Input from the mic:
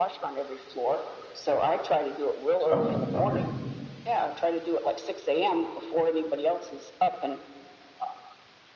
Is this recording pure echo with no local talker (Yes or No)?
No